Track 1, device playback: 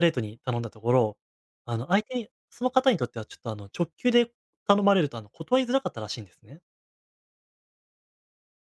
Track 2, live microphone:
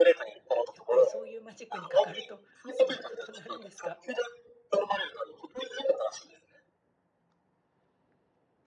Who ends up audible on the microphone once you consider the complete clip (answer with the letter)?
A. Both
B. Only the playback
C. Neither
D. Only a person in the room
A